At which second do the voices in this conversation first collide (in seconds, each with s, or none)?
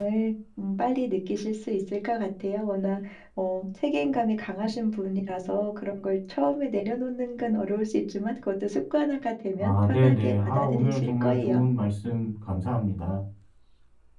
9.6 s